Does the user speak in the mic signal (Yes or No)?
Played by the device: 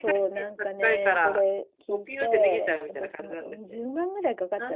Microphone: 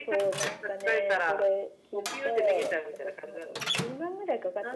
No